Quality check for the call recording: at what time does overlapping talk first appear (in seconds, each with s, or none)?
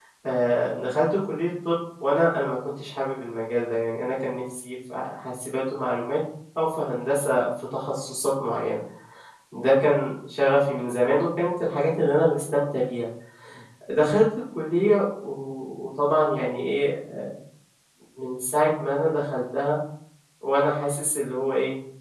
none